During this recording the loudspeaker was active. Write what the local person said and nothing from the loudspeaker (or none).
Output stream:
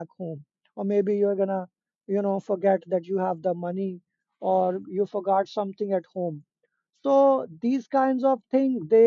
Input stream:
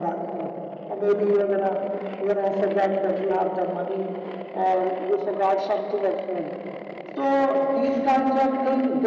none